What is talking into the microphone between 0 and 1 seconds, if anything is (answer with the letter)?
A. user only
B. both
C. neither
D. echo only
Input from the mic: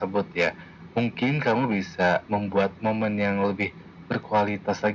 D